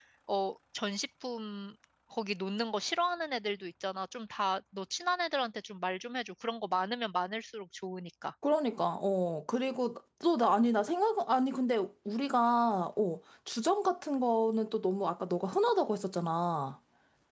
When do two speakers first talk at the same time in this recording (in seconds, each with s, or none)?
none